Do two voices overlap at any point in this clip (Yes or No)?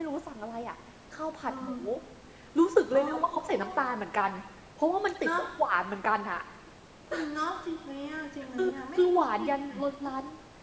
Yes